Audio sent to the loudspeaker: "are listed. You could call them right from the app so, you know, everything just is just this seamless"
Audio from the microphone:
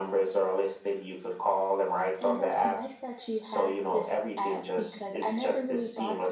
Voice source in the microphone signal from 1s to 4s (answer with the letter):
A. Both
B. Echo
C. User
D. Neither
A